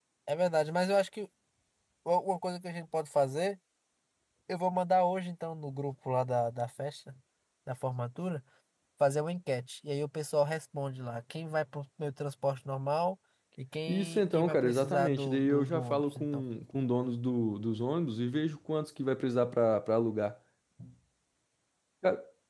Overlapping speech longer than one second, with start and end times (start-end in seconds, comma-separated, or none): 13.9-16.4